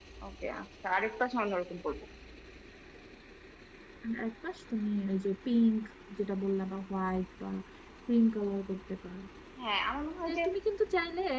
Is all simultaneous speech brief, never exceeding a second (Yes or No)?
Yes